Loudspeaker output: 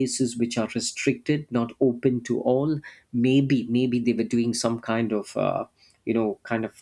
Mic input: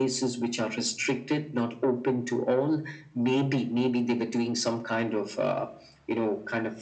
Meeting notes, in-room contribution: none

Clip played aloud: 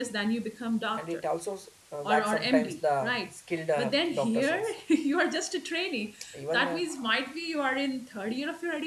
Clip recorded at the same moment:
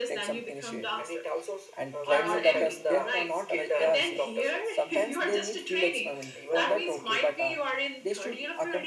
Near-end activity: present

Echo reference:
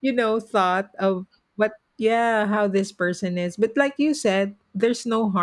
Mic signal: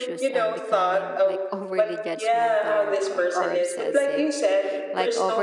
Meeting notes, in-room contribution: present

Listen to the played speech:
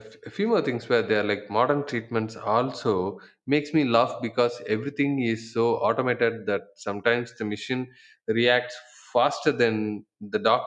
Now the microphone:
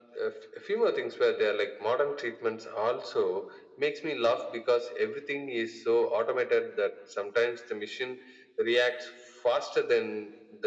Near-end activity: none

